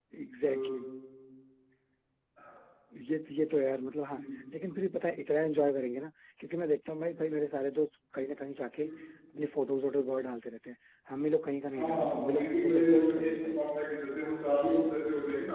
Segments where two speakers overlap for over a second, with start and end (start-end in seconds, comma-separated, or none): 11.7-13.6